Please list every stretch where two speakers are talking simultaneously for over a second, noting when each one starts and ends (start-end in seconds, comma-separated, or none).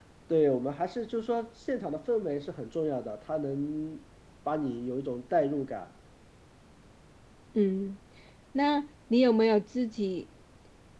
none